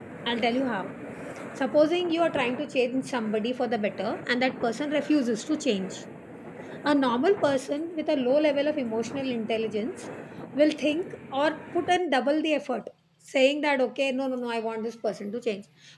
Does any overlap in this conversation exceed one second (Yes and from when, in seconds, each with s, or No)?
No